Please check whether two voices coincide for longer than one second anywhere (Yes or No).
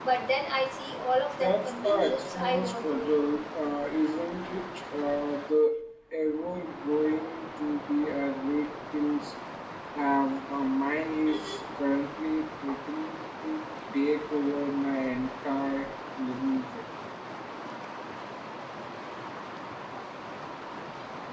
Yes